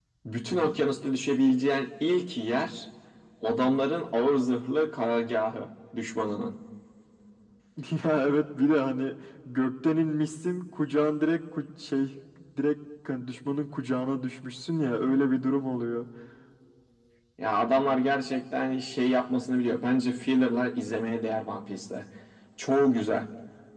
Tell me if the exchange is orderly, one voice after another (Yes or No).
Yes